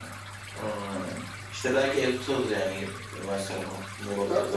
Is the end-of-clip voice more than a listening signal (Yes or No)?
Yes